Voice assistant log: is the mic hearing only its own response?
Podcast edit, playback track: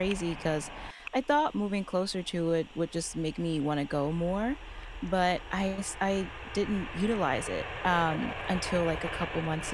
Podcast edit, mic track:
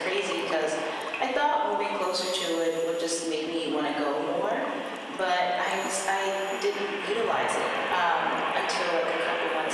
Yes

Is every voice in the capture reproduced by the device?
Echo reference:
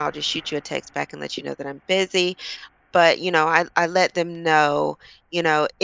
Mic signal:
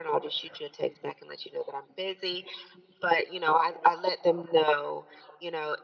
Yes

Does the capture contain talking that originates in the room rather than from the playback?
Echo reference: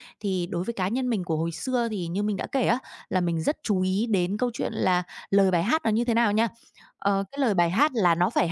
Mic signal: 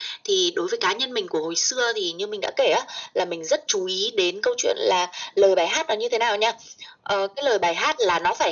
No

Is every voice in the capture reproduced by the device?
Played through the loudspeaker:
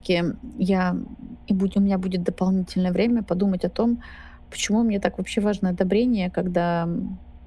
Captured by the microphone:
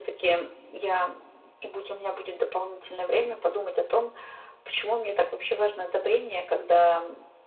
Yes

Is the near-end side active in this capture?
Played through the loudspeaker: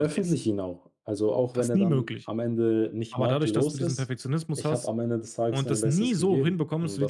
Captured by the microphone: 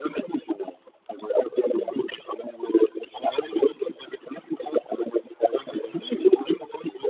No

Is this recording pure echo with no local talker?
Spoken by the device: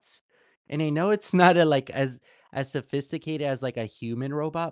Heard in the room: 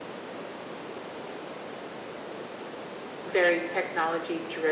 No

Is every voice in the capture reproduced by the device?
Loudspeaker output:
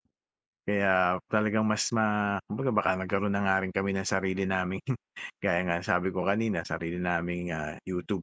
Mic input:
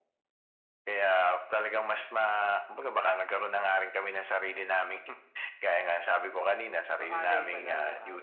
No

